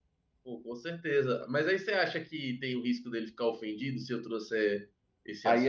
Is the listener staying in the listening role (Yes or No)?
No